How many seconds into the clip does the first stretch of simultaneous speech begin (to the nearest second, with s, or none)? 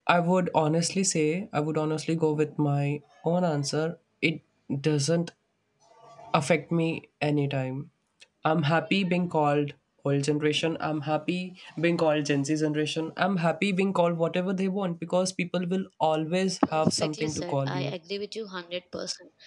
17 s